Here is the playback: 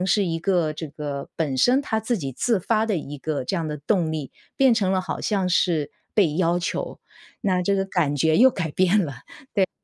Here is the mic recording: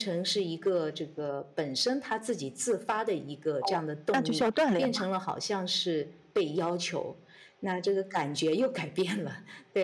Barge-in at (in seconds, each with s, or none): 3.6 s